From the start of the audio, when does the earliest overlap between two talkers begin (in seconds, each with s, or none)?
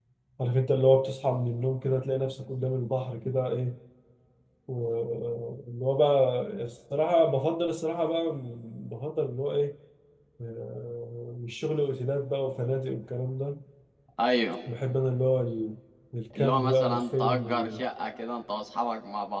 16.4 s